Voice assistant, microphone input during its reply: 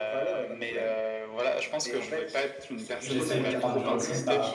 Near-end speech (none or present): present